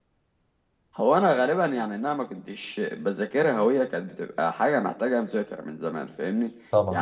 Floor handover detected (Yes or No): No